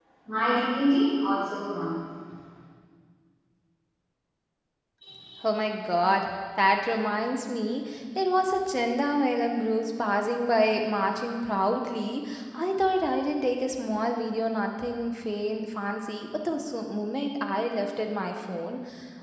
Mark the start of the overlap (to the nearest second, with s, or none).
none